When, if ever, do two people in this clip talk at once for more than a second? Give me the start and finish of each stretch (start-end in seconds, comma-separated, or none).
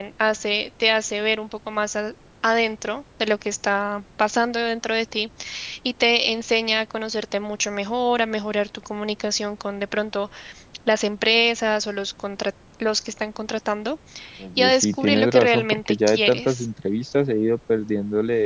14.6-16.6